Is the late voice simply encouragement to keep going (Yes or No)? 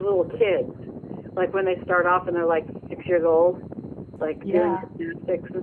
Yes